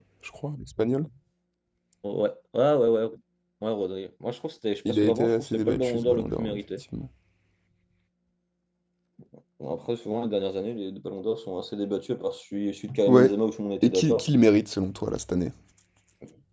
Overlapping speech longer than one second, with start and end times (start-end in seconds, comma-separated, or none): 4.9-6.6